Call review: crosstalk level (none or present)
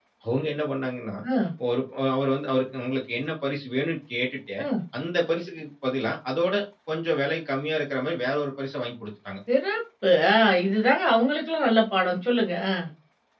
none